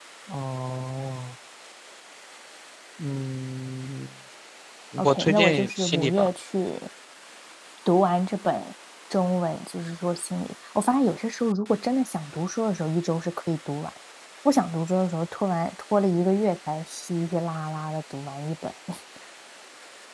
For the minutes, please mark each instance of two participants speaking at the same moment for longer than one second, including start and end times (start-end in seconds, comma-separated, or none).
5.0-6.3